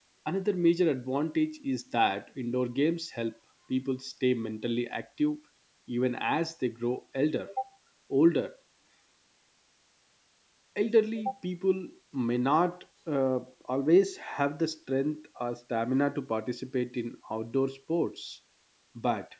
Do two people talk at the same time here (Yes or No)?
No